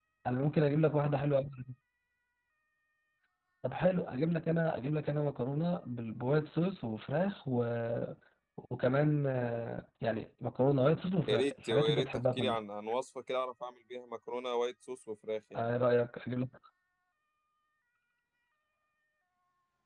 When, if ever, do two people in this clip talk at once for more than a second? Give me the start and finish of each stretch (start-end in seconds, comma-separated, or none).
11.3-12.6